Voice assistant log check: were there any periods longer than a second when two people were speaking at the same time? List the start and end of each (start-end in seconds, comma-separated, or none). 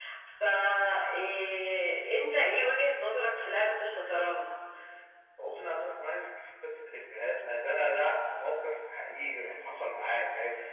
none